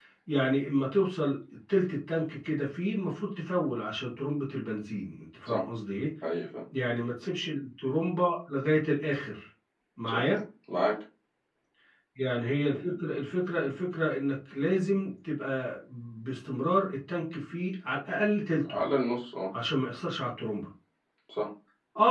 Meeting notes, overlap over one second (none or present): none